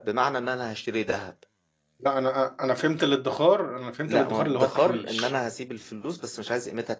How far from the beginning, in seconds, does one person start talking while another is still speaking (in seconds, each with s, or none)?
4.0 s